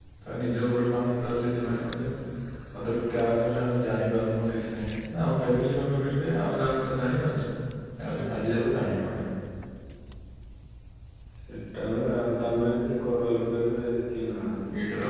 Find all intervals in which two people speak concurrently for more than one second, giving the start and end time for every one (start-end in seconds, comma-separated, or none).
none